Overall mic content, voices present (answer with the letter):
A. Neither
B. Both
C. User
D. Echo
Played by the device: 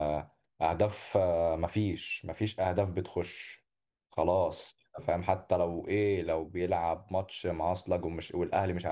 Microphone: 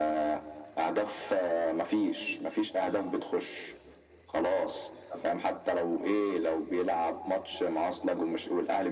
D